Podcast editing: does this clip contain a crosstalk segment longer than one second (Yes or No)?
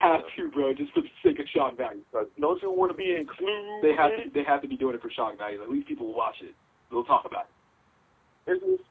No